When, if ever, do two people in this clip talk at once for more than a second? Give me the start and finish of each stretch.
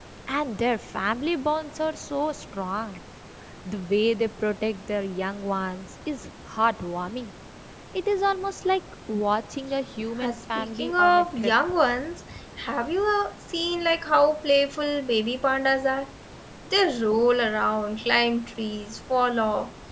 10.2-11.5

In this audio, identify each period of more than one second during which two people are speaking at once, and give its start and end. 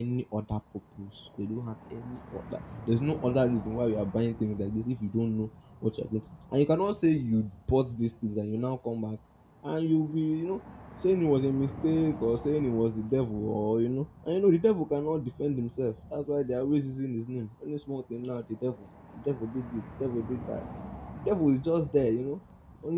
none

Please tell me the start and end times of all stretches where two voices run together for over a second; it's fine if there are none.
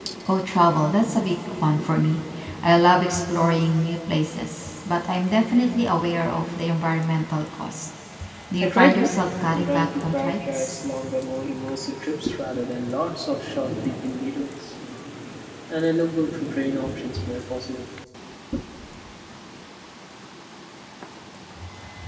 9.5-10.8

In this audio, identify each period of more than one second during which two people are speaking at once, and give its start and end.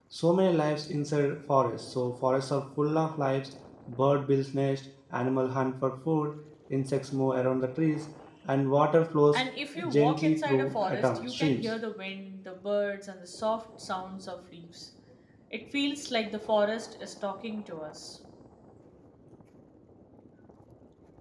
9.9-11.7

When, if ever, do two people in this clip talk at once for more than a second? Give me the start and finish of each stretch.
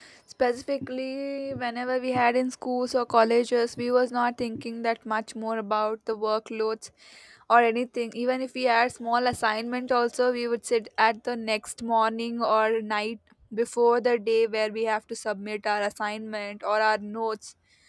none

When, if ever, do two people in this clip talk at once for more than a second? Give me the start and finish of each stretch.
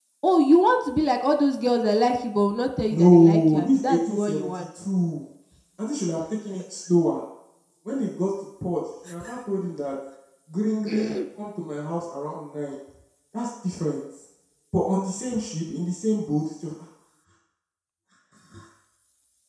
2.9-4.6

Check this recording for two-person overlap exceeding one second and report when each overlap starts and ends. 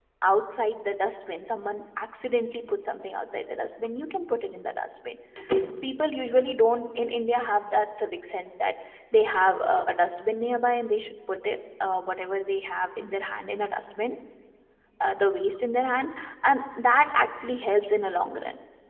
none

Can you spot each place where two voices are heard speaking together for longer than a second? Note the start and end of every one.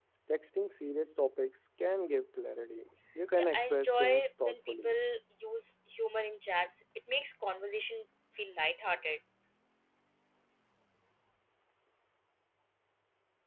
3.4-5.0

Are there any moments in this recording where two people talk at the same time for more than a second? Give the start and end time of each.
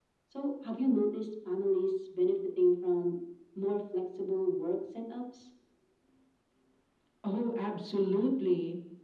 none

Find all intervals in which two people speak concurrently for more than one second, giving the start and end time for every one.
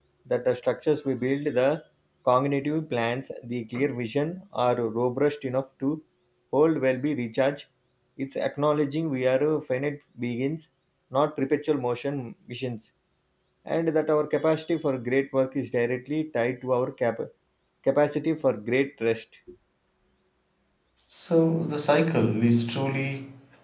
none

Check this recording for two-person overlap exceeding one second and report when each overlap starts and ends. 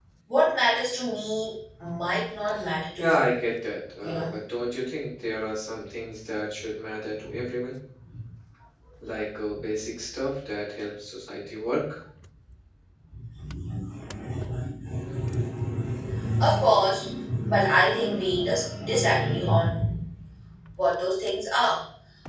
none

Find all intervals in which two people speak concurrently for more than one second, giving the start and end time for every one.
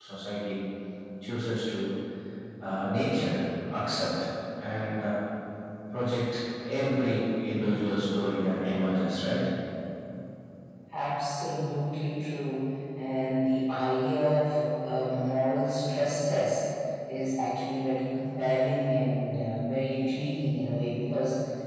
none

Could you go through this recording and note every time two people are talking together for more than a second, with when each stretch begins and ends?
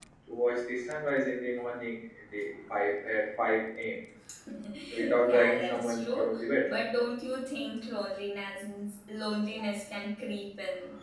5.0-6.3

